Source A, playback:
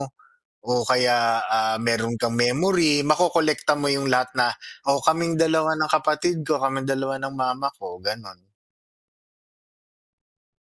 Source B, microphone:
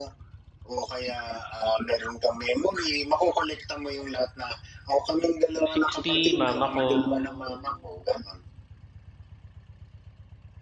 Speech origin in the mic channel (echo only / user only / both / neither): both